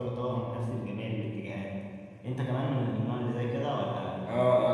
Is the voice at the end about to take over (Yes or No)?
Yes